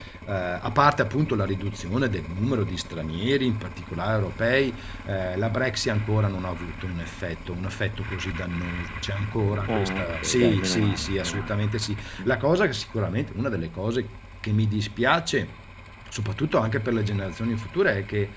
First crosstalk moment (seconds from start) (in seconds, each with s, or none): 9.7 s